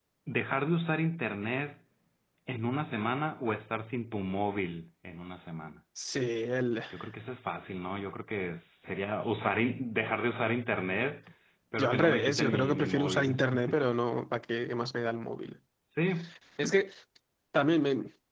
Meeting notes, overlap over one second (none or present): present